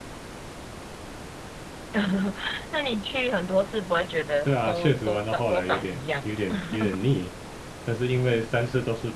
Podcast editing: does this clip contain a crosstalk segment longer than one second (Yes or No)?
Yes